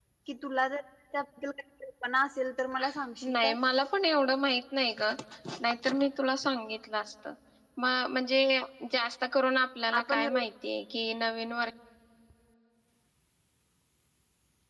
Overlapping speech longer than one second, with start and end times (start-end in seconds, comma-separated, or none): none